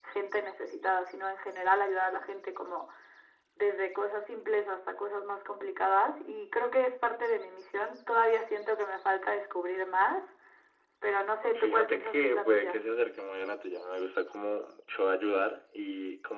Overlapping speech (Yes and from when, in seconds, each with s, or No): Yes, from 11.6 s